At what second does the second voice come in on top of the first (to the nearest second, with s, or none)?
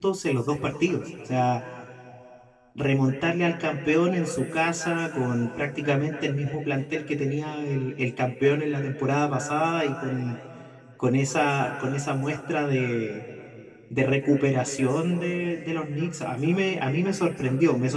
none